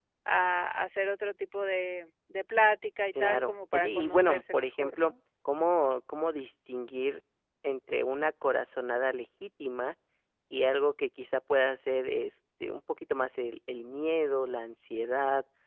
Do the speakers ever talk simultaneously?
Yes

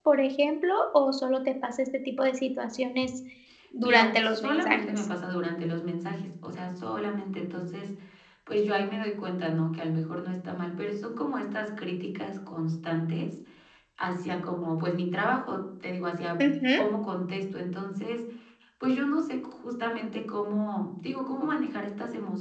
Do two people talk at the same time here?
Yes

